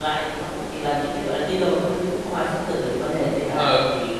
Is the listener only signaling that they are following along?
No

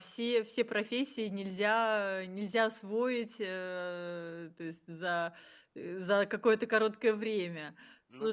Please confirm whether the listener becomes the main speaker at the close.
No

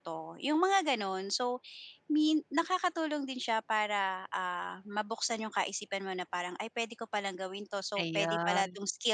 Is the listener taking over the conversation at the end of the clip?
No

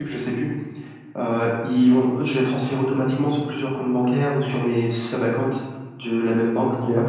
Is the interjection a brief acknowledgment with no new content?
Yes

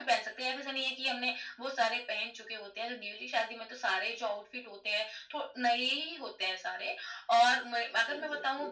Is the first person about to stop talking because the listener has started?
No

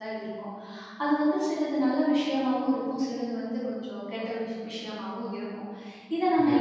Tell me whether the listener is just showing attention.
Yes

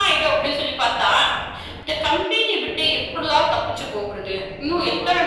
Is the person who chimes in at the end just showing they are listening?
Yes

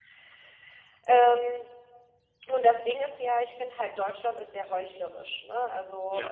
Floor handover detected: No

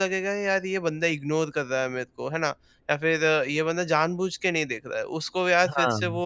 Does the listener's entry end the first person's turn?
No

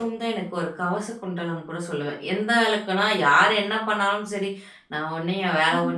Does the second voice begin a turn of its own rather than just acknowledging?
No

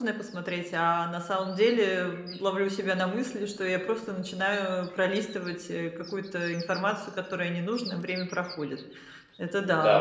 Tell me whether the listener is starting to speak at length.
Yes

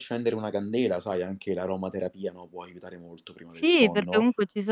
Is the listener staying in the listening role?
No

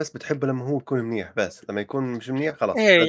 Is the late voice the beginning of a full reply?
Yes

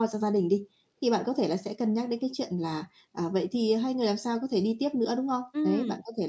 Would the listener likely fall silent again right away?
Yes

